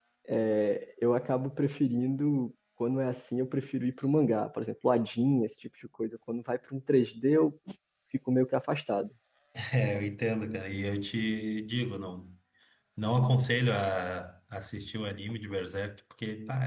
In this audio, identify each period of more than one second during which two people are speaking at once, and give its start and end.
none

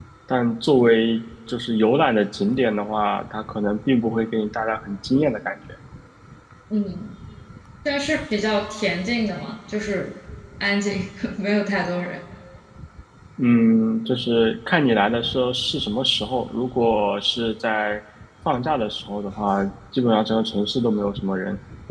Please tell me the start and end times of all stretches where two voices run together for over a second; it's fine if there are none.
none

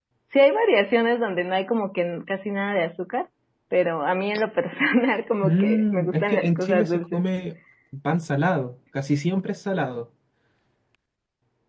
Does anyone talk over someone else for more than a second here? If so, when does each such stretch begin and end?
5.4-7.2

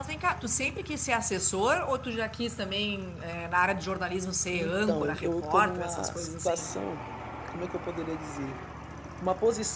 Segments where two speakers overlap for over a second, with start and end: 4.5-6.7

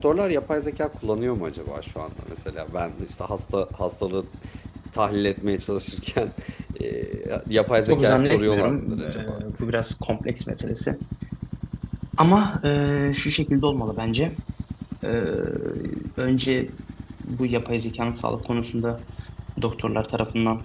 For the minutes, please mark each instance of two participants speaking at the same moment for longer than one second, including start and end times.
7.8-9.4

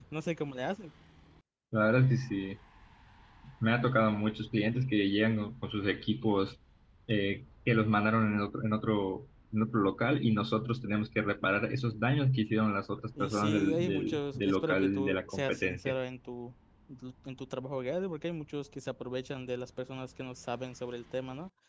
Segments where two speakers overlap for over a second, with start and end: 13.2-16.0

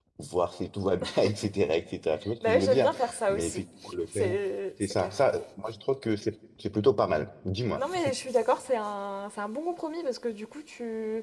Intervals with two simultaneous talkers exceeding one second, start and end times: 2.4-3.6

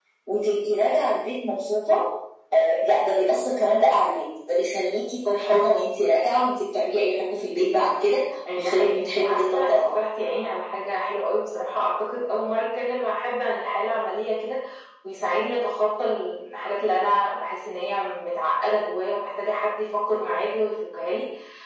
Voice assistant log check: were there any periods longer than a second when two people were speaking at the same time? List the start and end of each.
8.5-10.0

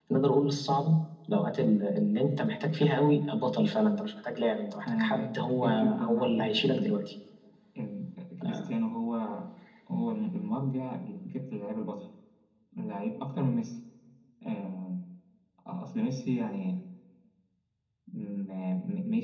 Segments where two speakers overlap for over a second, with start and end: 4.9-7.0

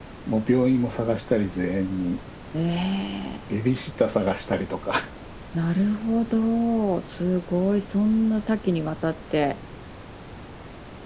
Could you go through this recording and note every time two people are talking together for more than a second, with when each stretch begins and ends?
none

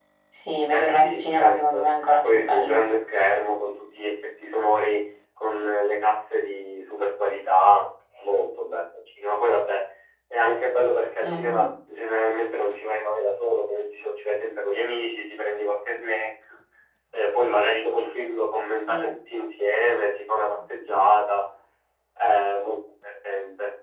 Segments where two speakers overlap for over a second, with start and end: 0.7-2.9

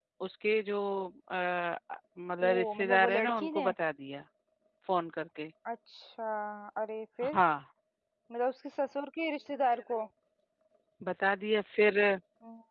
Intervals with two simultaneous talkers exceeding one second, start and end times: 2.4-3.7

